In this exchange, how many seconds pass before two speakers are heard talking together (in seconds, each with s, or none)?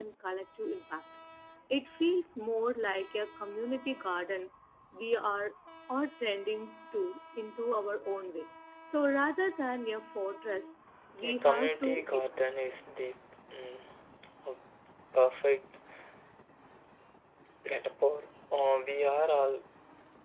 11.2 s